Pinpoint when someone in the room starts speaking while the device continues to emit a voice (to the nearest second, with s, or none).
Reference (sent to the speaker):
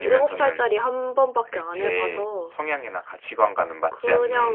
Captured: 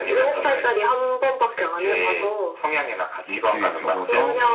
3 s